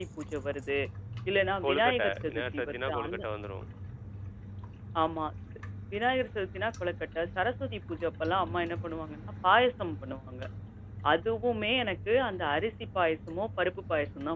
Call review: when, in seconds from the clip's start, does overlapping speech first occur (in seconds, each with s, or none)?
1.6 s